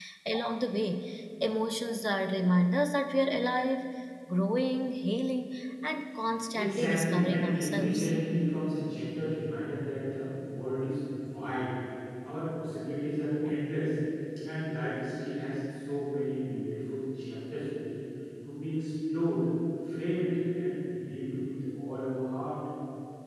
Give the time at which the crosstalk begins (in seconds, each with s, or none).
6.5 s